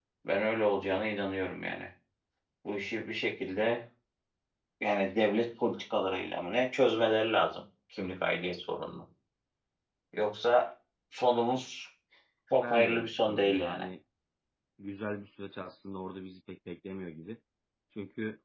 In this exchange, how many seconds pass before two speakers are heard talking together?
12.6 s

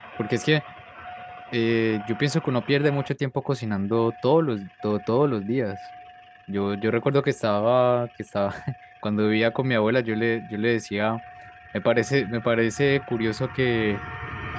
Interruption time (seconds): none

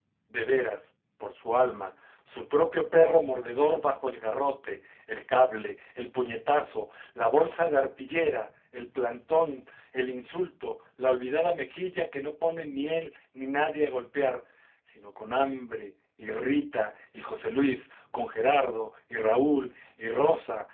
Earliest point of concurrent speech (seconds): none

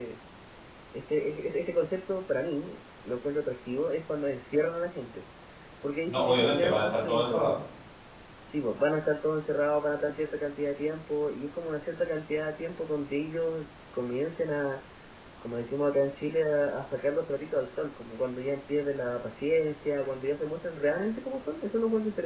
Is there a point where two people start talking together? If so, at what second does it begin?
6.1 s

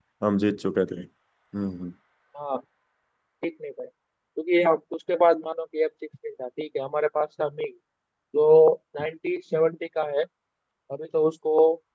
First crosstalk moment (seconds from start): none

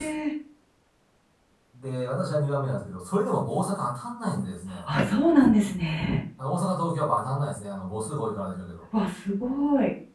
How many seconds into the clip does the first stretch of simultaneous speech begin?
none

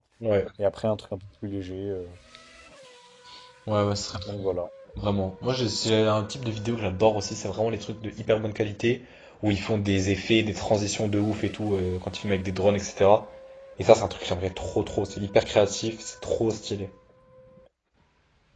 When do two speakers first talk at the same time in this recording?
none

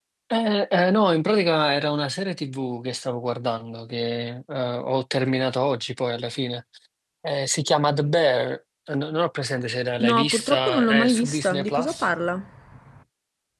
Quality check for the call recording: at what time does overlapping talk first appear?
9.9 s

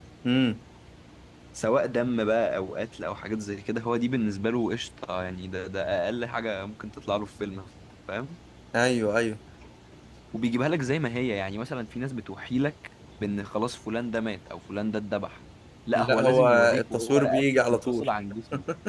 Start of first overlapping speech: 15.9 s

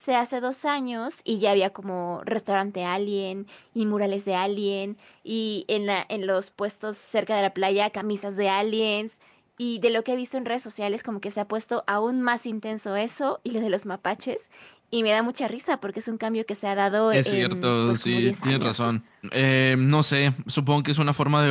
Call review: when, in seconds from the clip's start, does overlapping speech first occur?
17.1 s

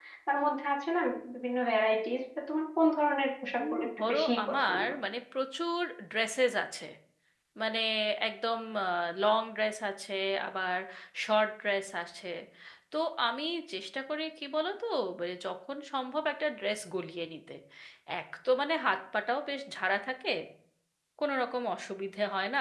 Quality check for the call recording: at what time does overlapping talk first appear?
3.6 s

